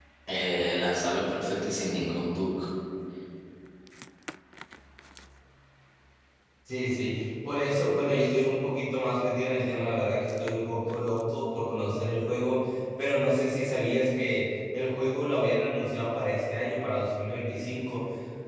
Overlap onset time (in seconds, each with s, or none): none